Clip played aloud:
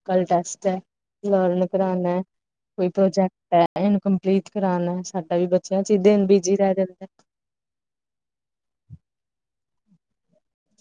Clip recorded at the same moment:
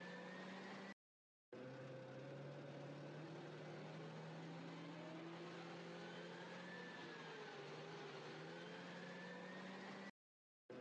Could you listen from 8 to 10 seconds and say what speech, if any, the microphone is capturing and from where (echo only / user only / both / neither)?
neither